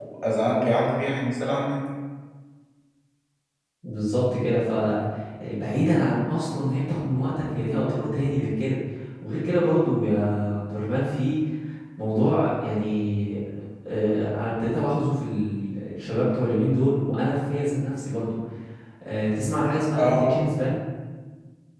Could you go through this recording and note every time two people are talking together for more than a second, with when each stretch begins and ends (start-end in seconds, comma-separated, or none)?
none